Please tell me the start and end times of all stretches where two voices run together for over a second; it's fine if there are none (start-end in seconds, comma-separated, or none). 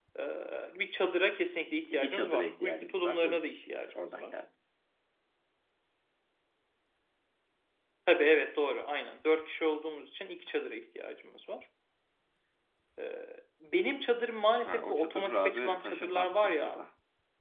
1.9-4.3, 14.7-16.9